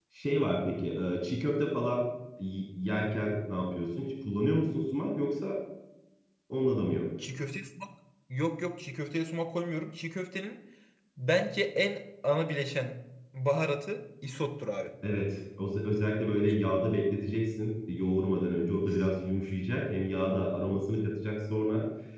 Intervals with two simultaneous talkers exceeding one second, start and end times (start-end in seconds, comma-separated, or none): none